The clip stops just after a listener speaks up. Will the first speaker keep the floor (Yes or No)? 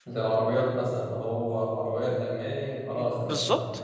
No